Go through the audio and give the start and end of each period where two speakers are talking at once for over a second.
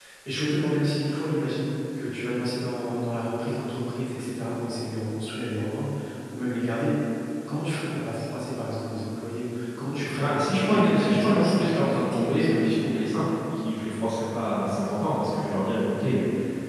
10.2-12.6

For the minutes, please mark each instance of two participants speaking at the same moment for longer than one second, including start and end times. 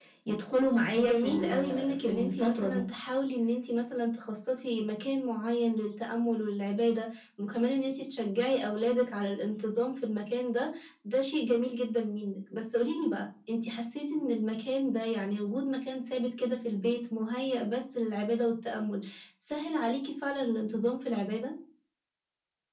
1.0-2.8

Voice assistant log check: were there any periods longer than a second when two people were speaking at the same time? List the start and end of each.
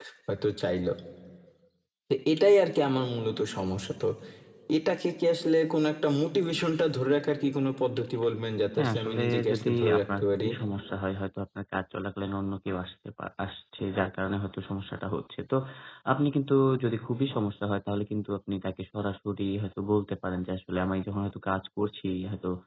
8.8-10.5

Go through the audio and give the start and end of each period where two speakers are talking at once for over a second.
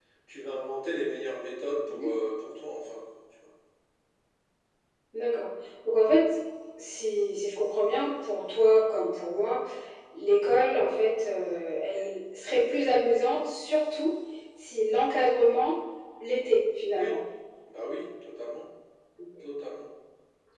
none

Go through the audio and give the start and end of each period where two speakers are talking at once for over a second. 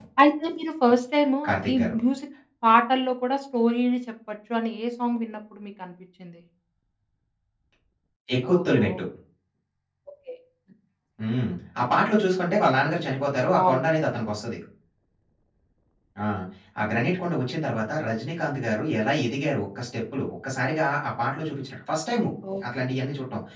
none

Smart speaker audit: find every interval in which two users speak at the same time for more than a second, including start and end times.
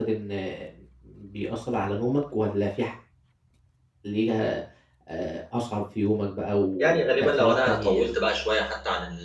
6.8-8.2

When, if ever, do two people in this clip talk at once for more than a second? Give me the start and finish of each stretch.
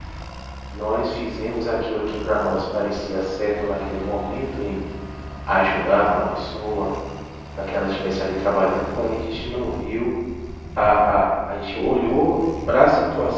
none

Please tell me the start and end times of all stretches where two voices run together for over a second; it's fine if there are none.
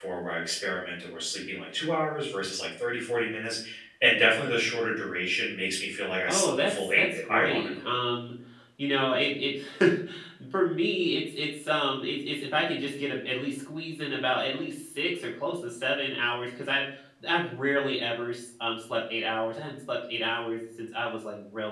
6.3-7.9

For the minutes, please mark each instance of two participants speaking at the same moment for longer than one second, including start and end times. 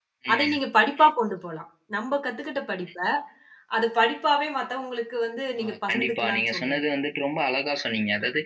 5.6-6.8

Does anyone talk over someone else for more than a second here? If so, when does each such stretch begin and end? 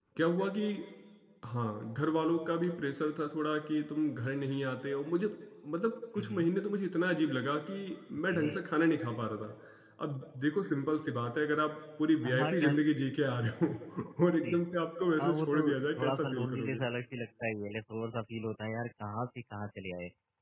15.2-16.8

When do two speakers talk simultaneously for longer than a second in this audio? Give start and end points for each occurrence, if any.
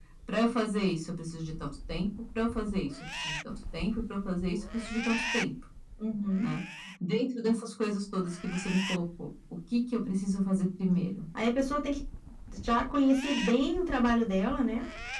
none

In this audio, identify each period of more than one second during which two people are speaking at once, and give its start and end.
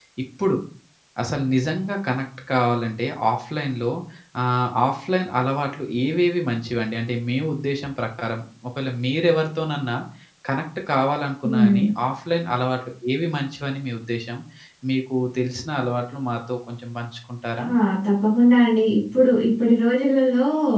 none

